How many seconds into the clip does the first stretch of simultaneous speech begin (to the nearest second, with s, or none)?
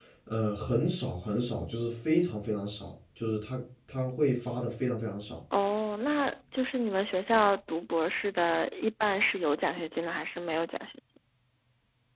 none